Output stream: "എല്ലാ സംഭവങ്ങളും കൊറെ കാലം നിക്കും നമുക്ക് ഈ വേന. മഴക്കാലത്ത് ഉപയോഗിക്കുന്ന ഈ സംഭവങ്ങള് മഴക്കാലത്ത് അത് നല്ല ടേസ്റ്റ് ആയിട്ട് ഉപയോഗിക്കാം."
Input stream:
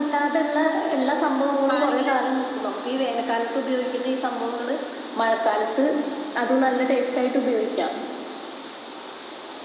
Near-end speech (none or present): present